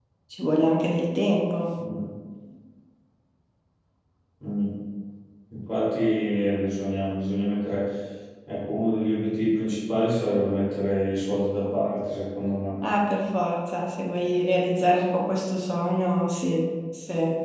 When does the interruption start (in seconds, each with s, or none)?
none